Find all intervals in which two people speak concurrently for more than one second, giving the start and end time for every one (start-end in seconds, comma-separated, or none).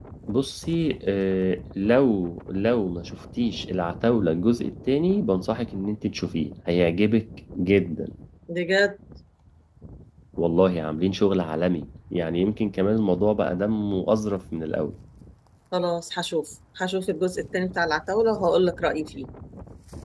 none